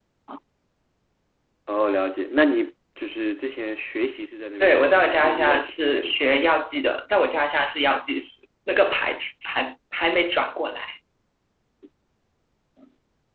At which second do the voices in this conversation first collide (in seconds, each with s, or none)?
4.6 s